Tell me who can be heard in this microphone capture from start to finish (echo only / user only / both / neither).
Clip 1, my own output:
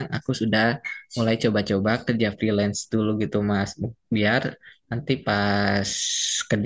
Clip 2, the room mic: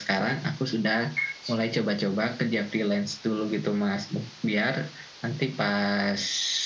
echo only